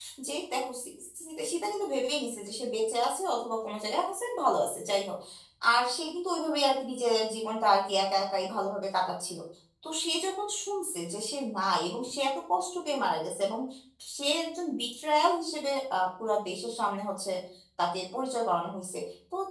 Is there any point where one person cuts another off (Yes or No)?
No